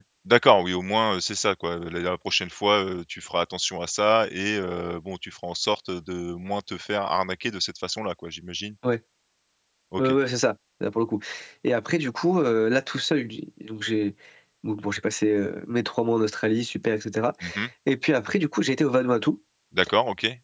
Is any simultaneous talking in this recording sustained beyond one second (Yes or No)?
No